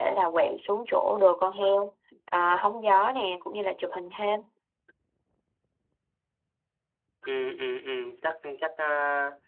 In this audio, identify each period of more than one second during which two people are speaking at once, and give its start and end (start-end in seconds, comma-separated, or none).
none